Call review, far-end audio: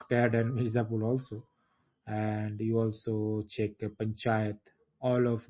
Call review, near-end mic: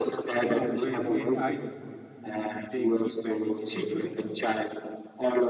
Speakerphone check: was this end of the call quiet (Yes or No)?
No